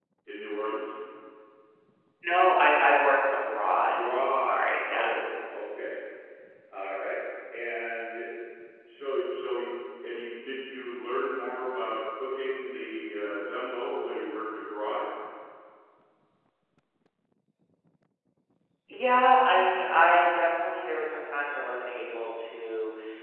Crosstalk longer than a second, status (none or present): present